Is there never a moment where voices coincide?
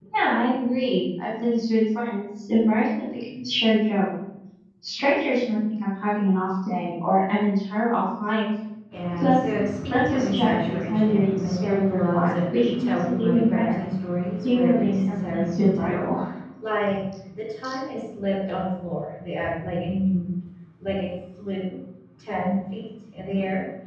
No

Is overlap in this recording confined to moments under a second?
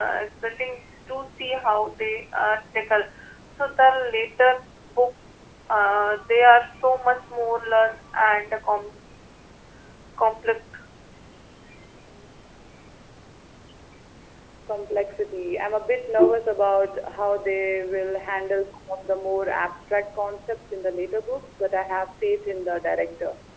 Yes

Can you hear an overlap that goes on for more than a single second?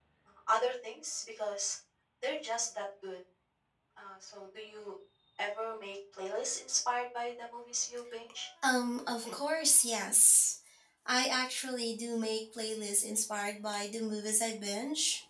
No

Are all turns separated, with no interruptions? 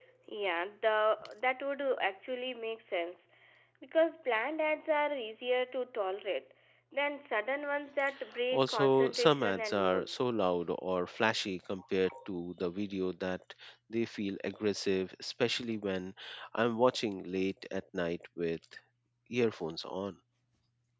No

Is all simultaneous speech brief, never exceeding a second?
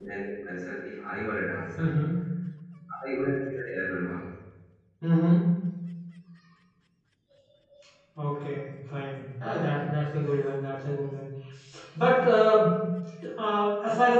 Yes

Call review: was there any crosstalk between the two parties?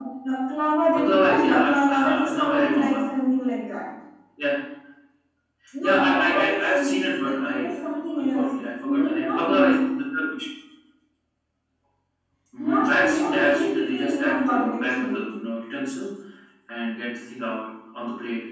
Yes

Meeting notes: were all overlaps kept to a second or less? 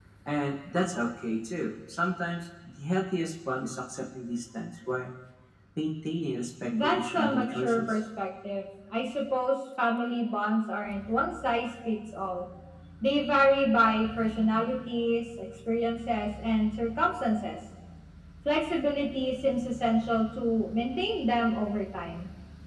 No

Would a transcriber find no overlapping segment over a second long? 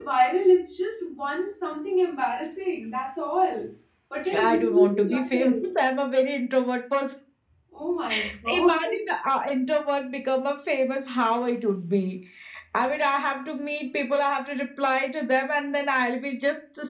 No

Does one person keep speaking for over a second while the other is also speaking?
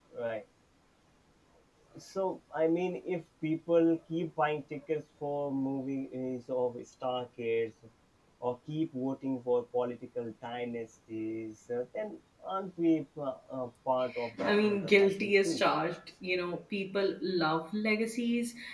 Yes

